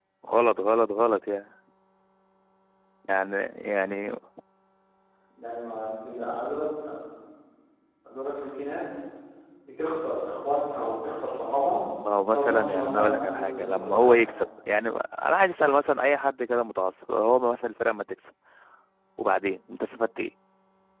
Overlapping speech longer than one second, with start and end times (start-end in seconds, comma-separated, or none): 12.3-14.2